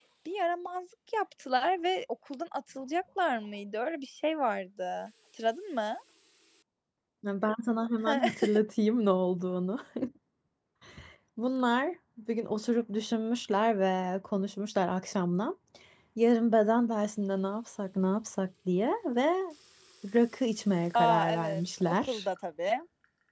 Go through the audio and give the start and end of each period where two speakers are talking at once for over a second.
20.9-22.2

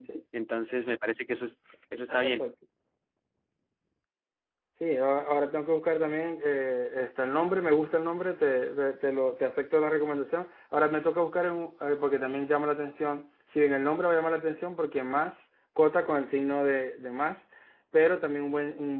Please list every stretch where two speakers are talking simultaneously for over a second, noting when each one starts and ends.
none

